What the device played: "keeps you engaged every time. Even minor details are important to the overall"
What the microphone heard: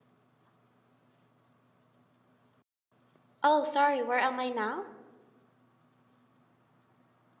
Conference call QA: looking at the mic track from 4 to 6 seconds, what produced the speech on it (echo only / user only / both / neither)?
user only